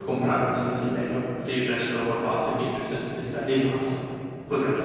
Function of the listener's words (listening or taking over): taking over